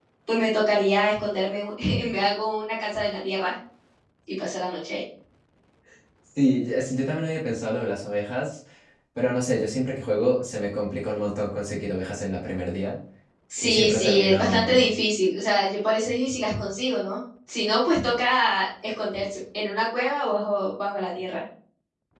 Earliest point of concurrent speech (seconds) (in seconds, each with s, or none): 13.6 s